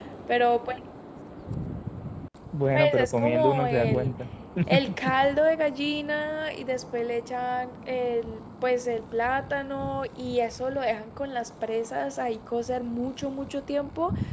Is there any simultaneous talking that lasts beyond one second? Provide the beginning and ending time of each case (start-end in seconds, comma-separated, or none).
2.7-4.1